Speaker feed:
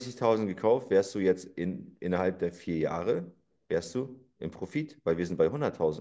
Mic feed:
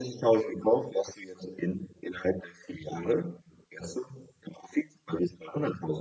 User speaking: No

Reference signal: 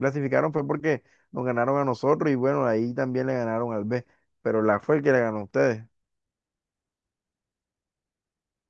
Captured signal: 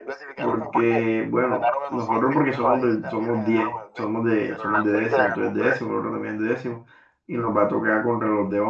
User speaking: Yes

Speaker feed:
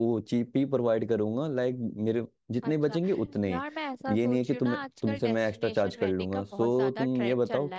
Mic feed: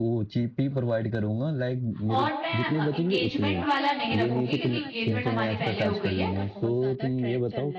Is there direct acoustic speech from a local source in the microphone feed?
Yes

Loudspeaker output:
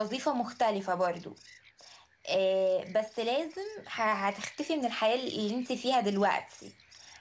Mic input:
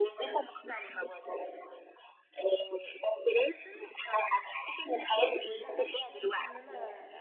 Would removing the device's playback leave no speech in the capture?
No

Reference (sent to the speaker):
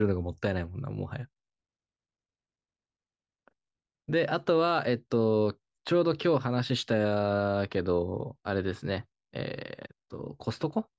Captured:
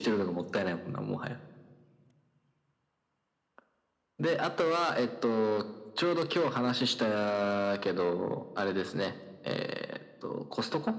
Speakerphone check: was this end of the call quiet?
Yes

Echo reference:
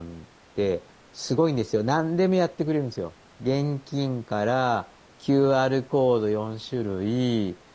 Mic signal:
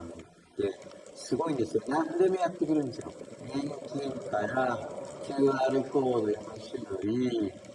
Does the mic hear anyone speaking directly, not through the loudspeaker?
No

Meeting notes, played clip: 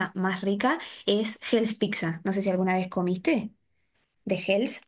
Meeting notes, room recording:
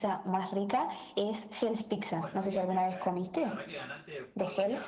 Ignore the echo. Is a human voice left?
Yes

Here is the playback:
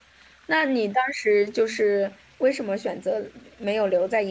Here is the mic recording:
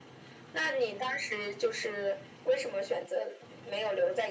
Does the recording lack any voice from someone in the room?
Yes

